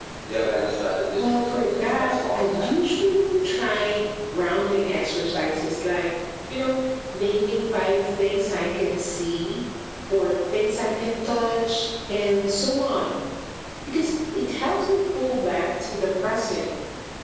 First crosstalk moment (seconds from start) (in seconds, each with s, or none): 1.1 s